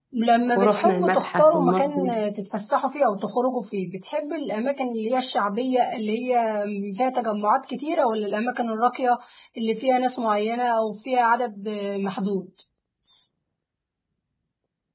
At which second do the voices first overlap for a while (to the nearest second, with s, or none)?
1 s